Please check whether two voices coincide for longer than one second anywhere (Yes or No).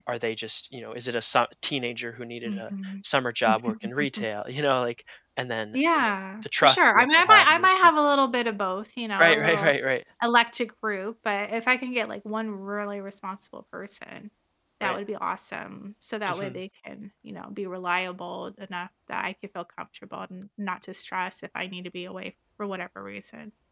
Yes